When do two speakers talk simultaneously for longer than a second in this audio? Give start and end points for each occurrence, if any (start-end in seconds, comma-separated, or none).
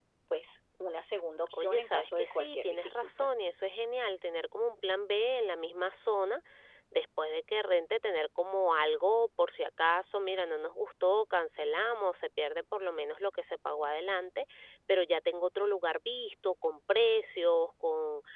1.5-3.3